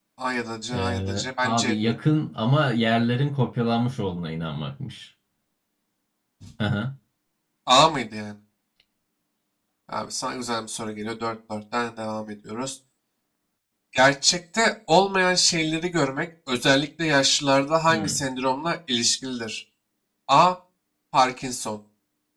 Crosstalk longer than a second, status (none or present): present